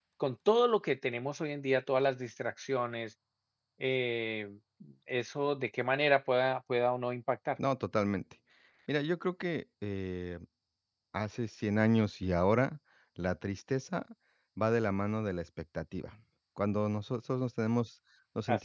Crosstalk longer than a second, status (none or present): none